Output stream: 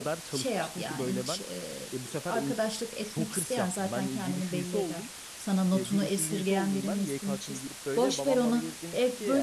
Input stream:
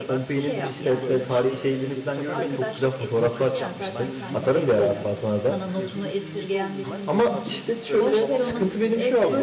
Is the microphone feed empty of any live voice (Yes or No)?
No